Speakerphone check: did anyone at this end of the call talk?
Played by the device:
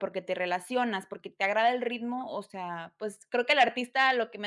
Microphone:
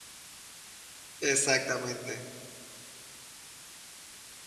Yes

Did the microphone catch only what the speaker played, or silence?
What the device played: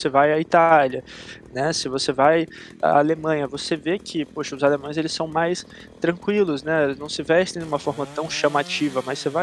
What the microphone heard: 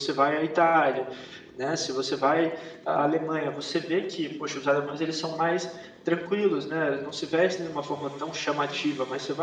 Yes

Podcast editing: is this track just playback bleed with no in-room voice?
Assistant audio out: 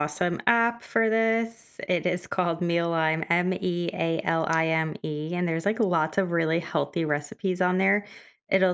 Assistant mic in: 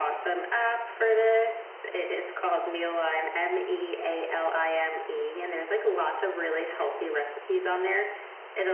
Yes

